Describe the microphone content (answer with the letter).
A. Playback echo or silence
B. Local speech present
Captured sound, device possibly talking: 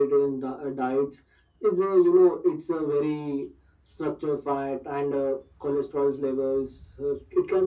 A